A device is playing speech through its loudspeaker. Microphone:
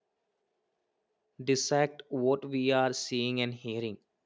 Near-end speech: present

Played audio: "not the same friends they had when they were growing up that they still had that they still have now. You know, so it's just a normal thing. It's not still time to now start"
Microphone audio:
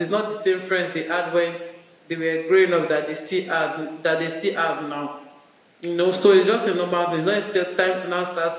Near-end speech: none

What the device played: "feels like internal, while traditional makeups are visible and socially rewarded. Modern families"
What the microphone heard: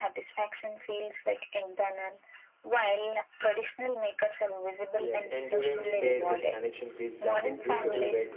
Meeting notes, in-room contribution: present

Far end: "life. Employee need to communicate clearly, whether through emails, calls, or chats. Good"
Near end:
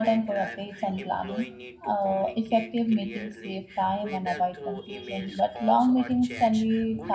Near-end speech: present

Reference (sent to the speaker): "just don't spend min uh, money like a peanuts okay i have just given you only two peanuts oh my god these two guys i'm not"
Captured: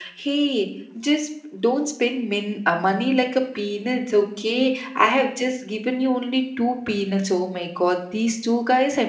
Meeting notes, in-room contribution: none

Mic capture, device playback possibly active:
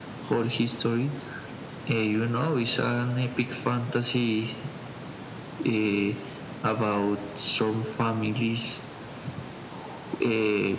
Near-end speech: none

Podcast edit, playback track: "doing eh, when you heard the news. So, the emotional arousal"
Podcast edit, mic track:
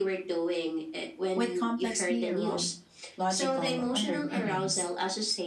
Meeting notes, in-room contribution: present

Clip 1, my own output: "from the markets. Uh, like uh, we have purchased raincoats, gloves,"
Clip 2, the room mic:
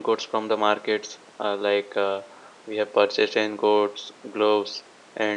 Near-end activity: none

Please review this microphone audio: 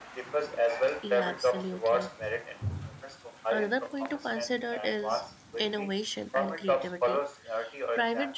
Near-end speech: present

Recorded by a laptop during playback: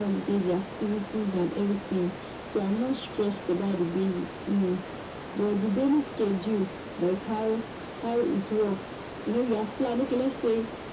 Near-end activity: none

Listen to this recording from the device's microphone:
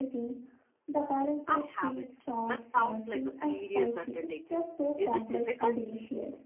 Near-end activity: present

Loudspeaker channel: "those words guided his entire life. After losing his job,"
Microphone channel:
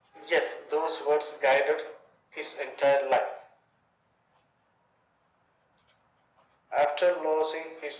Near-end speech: none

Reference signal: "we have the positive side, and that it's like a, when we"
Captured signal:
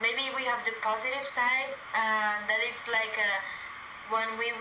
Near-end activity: none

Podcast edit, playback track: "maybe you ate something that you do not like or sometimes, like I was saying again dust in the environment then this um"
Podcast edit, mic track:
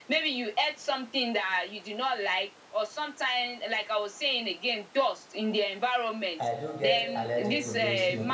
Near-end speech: present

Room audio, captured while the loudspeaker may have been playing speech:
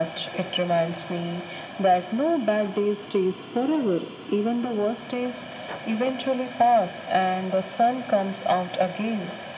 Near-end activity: none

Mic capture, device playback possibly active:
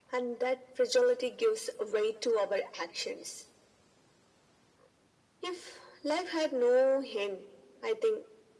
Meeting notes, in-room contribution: none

